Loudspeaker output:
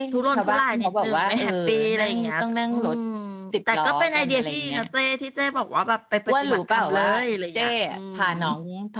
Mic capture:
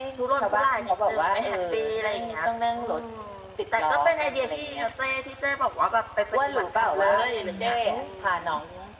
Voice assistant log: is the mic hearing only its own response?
No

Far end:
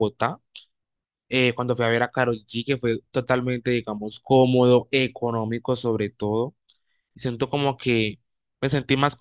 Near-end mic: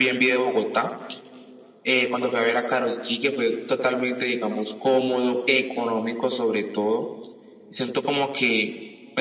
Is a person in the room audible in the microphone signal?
No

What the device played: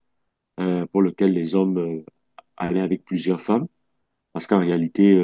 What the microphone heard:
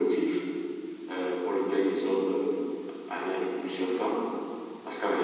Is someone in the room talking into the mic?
No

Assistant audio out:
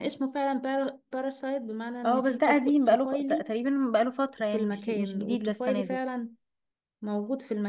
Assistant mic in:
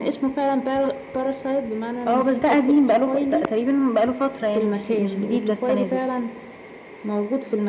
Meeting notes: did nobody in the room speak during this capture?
Yes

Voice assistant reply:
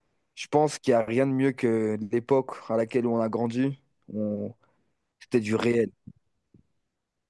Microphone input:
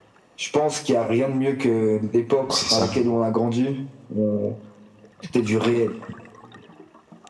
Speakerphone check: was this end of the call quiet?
No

